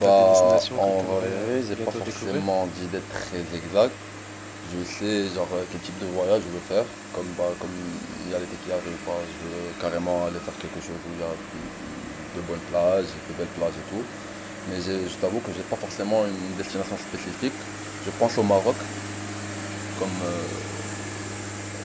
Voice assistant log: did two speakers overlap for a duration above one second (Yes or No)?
Yes